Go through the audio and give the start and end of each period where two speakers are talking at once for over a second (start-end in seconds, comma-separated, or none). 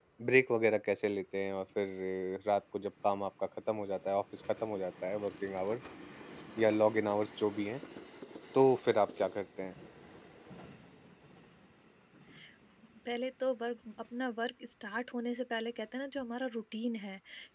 none